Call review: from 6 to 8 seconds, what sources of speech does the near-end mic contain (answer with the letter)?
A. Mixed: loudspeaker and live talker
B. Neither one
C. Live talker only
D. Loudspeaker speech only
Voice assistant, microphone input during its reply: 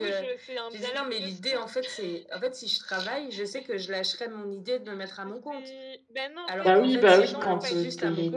A